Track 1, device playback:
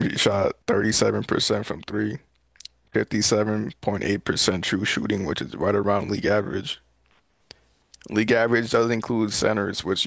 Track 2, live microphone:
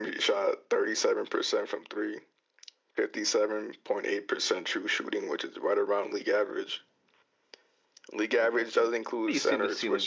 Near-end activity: present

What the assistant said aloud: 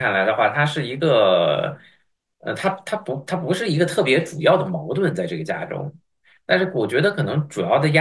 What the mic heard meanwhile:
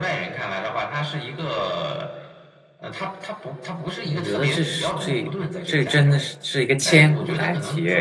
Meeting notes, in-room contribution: present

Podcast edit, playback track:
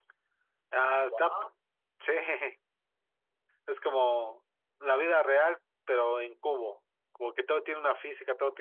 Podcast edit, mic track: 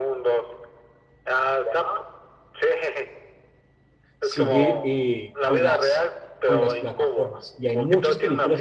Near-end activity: present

